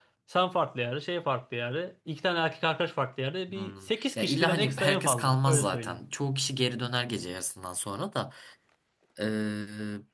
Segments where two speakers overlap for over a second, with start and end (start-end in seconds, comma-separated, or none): 4.2-6.0